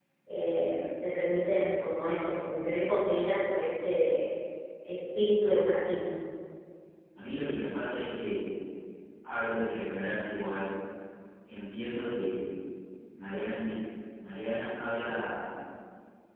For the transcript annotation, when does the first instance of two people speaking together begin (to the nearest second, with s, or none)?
none